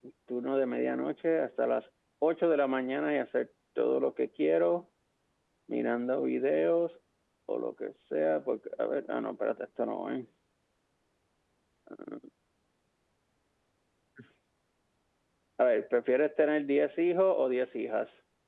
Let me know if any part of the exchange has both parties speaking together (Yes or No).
No